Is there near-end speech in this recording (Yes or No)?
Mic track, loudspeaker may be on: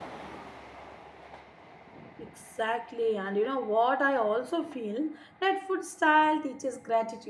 Yes